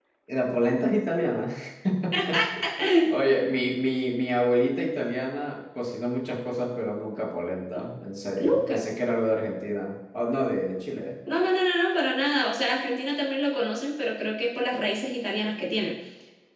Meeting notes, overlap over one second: none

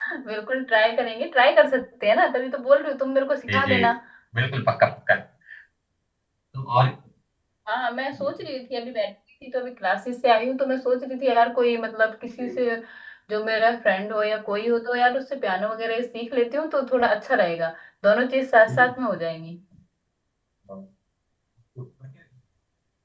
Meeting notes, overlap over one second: none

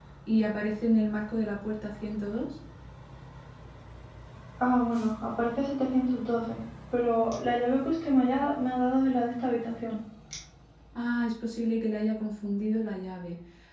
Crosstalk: none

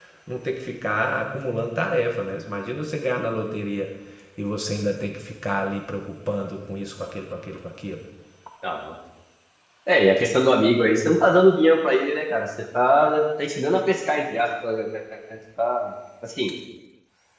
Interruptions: none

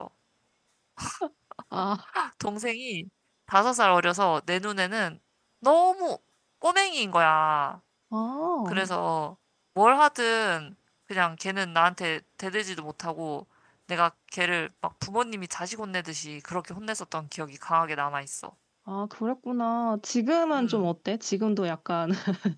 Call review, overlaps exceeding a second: none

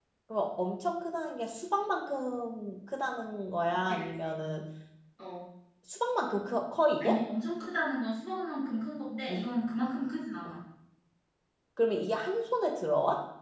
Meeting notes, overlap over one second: none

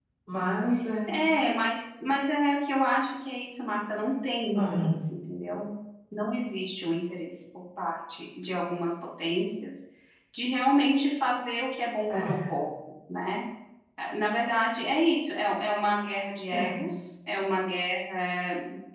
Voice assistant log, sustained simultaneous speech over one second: none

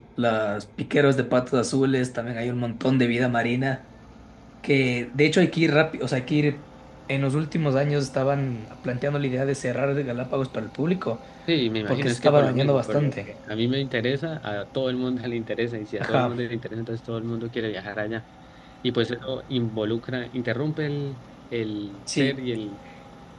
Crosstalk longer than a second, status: present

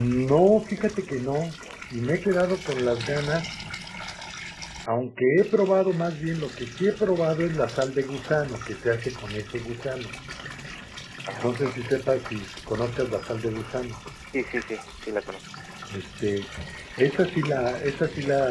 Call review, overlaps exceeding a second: none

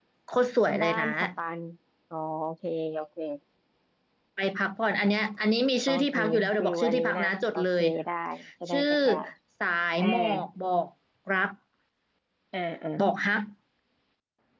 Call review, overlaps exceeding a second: present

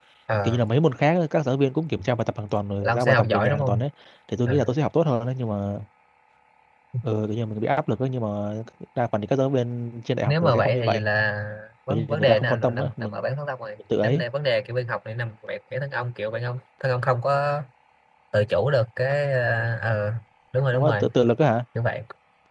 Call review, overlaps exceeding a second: present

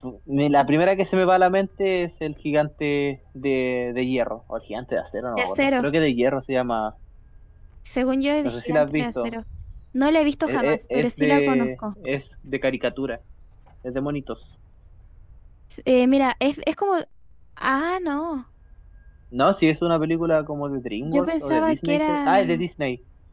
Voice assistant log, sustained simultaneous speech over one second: present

